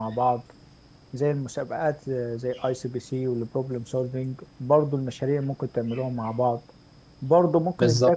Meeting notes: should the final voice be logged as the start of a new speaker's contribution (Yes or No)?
No